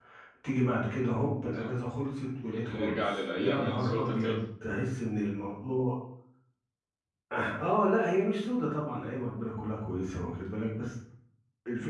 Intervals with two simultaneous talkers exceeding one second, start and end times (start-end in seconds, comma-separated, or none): 2.5-4.4